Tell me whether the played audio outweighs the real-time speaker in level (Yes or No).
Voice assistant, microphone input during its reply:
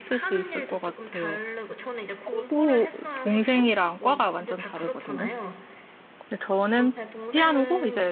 No